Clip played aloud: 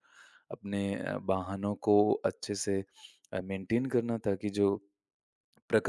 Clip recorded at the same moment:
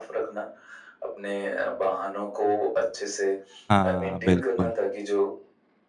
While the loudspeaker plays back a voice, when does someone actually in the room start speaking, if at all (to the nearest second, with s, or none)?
4 s